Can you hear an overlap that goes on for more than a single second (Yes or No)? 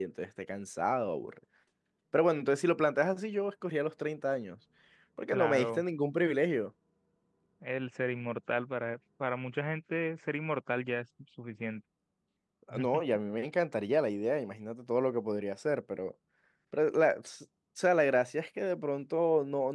No